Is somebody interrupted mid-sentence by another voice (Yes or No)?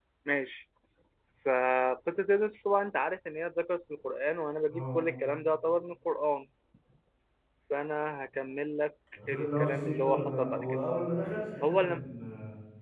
Yes